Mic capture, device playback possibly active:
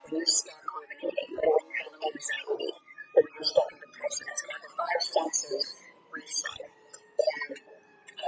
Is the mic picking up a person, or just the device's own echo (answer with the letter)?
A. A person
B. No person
B